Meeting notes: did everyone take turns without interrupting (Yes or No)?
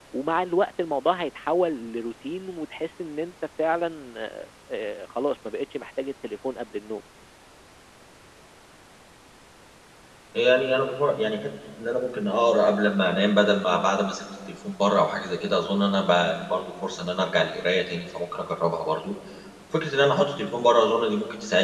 Yes